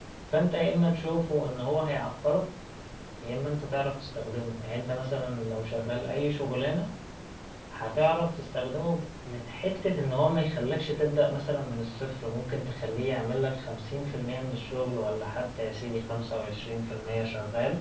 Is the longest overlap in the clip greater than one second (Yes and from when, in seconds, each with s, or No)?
No